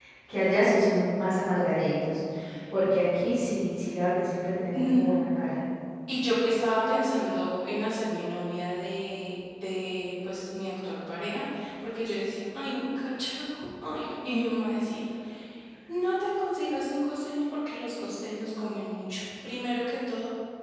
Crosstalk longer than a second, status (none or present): none